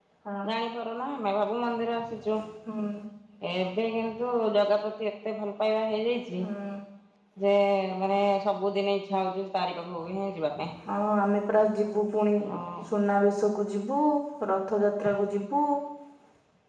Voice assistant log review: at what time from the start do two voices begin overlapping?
none

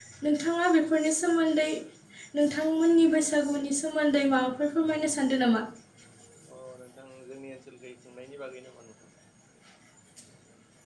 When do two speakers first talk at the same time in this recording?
none

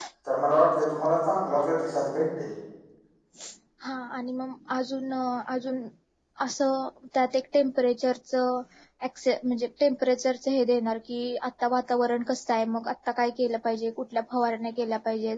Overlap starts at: none

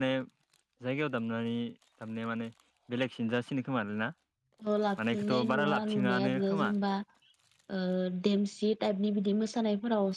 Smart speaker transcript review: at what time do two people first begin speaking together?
5 s

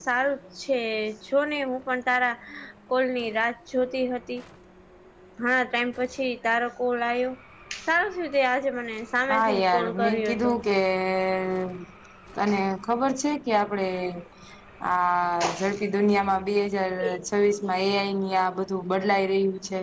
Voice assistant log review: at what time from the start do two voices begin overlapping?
9 s

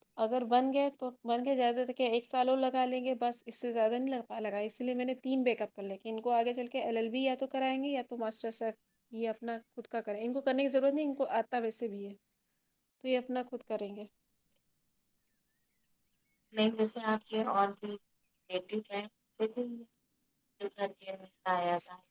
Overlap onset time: none

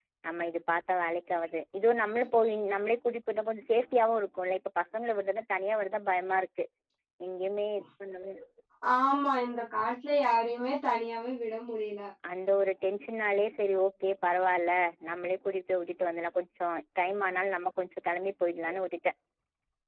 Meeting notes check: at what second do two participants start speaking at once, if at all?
none

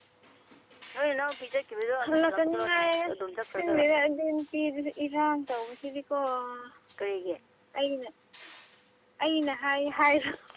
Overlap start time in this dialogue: 2 s

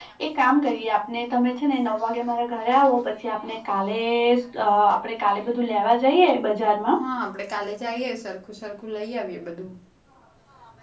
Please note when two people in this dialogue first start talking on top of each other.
none

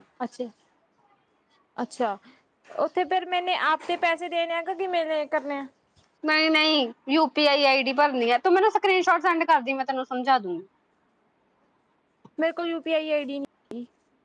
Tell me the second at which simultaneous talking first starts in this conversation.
none

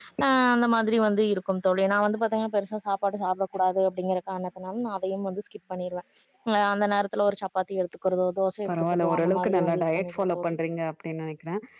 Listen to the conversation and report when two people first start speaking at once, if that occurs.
9 s

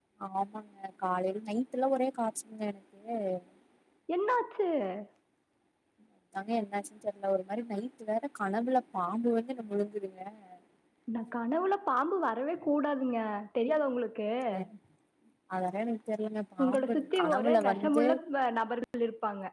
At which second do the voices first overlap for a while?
17 s

